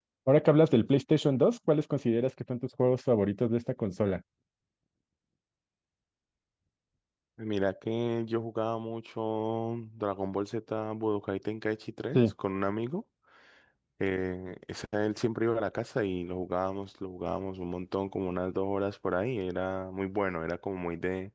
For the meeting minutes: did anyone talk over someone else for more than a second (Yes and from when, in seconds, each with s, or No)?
No